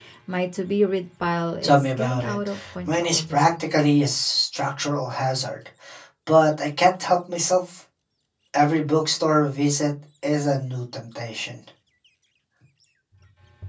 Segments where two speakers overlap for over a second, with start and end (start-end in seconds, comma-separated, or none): 1.6-3.5